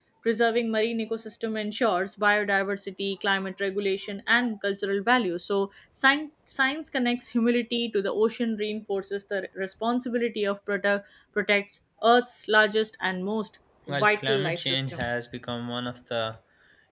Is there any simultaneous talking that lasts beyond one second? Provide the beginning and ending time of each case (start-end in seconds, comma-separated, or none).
13.9-15.1